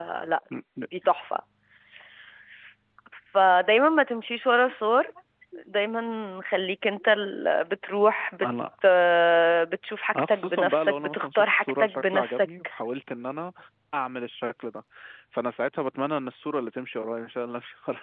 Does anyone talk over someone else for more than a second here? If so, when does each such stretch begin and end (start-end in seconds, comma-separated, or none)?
10.2-12.5